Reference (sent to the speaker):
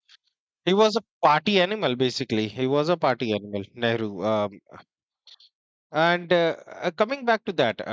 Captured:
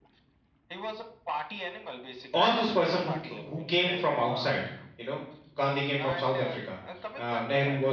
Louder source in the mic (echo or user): user